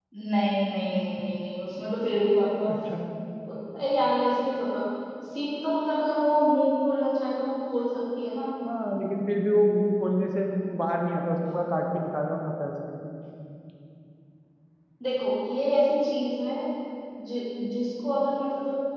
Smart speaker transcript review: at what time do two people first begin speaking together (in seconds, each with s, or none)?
none